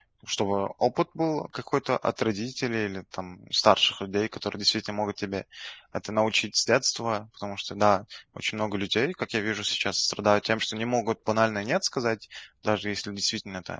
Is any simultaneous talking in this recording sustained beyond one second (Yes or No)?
No